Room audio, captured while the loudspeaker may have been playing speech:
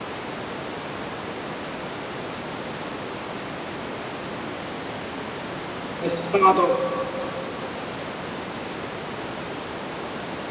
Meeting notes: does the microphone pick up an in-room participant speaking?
Yes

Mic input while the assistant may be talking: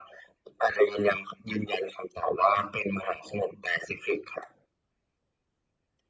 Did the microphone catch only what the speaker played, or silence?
Yes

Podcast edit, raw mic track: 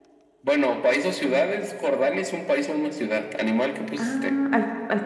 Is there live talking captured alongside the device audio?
Yes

